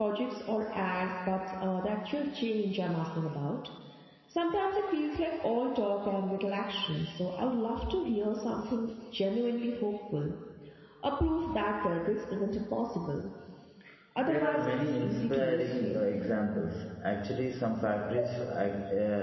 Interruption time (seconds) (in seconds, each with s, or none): 14.2 s